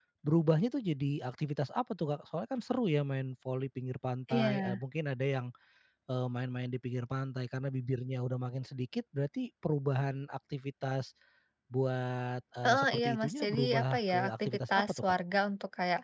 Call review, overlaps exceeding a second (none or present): present